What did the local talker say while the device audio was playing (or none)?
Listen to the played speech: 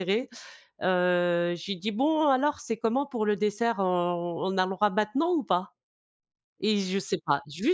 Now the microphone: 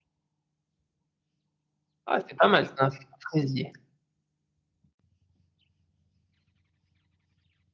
Ah, c'est pas mal ça. Un frai un fraisier.